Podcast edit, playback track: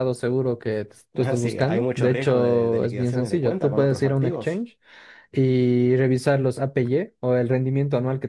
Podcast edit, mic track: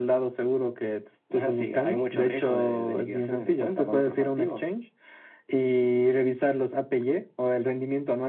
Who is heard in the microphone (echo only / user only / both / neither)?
echo only